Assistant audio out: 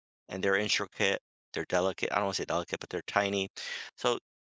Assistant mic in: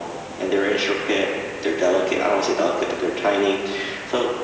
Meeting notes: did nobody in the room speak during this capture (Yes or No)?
Yes